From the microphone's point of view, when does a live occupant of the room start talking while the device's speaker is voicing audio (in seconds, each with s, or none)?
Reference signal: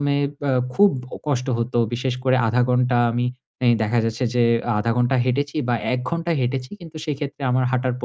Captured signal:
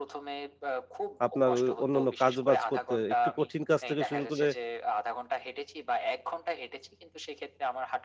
1.3 s